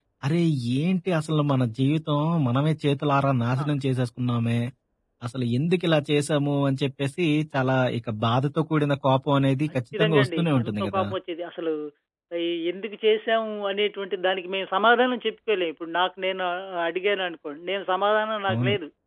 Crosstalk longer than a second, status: present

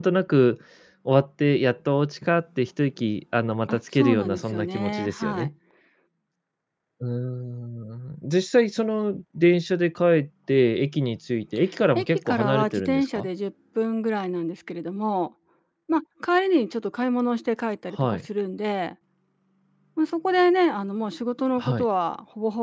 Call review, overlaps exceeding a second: present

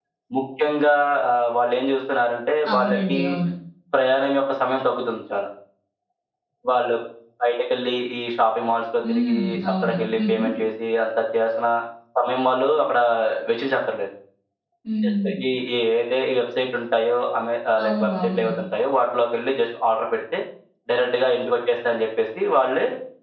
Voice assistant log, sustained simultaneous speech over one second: present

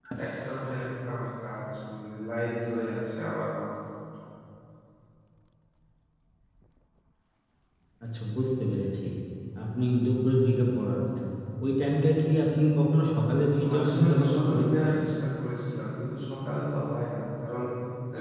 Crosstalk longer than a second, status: present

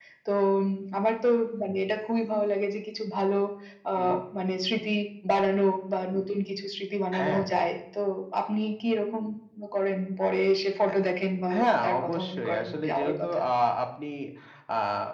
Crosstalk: present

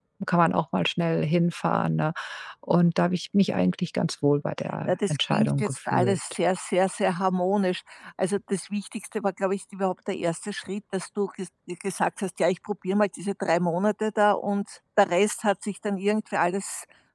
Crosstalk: present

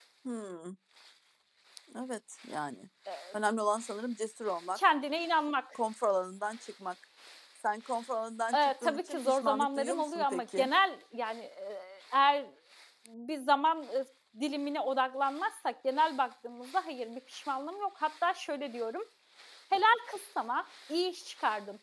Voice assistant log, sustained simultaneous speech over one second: present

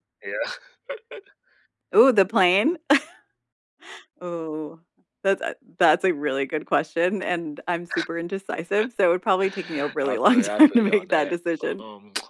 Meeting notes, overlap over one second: present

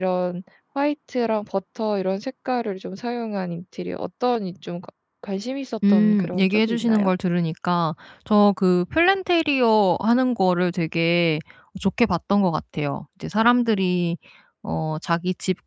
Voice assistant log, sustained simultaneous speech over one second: present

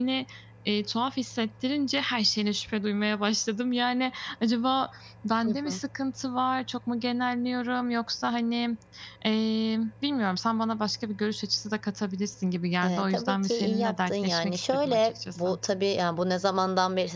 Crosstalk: present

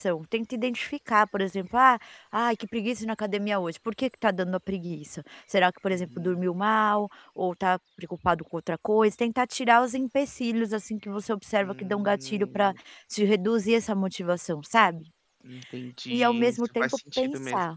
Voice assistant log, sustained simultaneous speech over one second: present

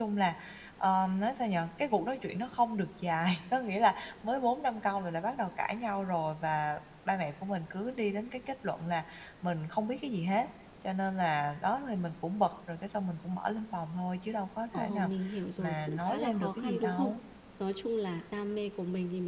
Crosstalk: present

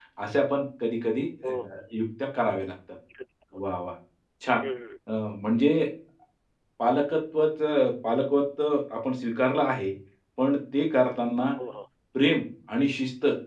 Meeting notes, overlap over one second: none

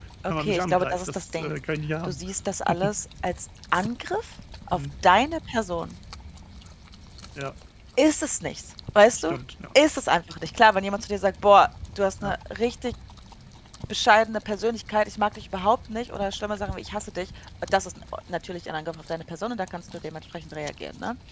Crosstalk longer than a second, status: present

